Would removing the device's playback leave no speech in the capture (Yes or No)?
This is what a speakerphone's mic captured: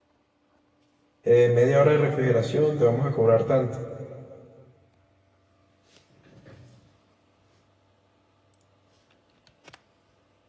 No